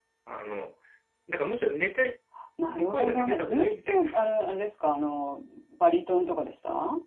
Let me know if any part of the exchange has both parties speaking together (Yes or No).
Yes